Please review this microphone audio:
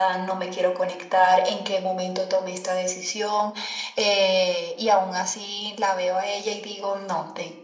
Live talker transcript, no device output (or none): none